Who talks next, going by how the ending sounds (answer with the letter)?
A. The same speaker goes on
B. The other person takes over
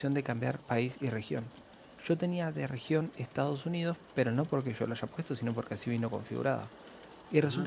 A